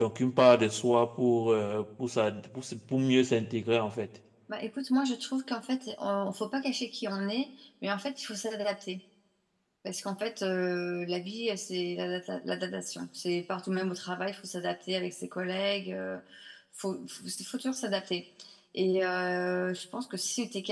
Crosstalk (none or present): none